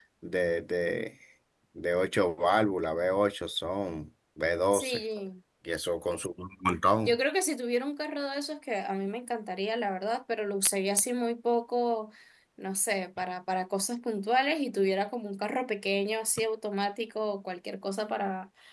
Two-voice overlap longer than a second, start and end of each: none

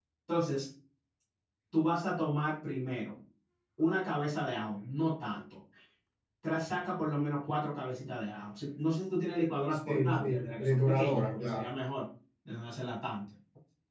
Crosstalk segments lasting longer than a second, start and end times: 9.7-11.7

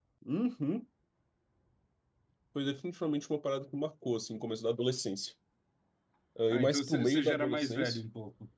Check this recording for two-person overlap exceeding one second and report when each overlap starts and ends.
6.5-8.0

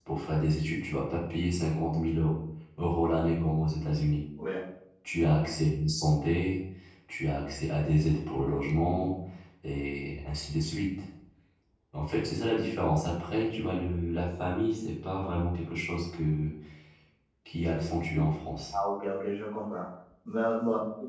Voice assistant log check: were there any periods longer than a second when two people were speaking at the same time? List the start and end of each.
none

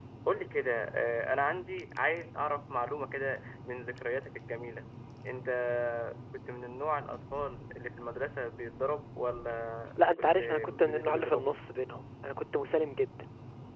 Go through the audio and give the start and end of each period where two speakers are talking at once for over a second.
10.0-11.5

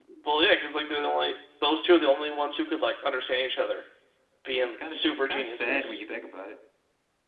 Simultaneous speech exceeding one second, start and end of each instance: 4.6-6.0

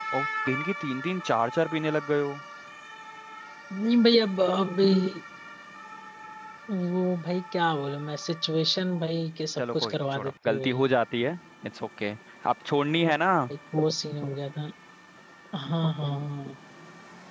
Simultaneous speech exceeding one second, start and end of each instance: 9.6-10.8

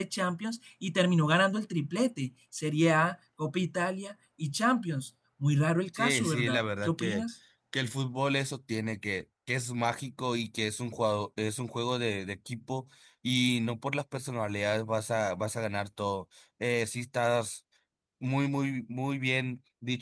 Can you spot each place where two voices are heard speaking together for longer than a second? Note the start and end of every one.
6.0-7.2

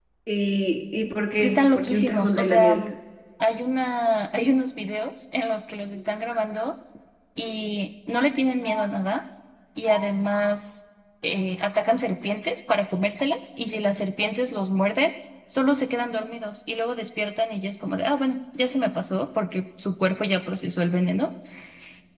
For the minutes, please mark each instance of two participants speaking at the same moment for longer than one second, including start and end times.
1.3-2.9

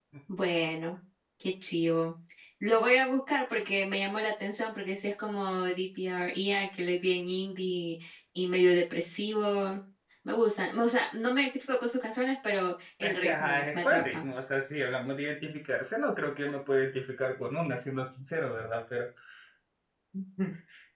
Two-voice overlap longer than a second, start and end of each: 13.0-14.2

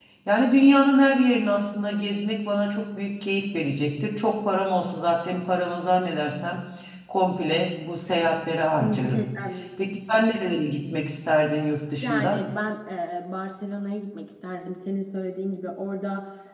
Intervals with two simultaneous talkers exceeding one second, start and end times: none

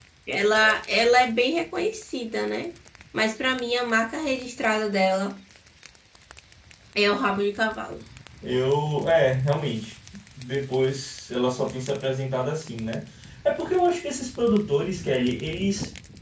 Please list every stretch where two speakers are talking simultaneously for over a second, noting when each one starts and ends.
none

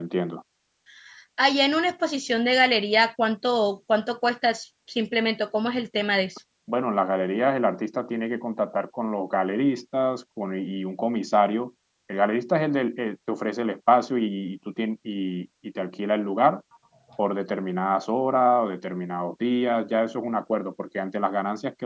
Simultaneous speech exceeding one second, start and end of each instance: none

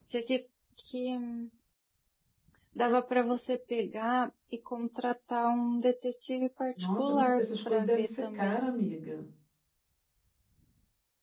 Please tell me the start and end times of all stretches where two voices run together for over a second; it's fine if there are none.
7.0-8.7

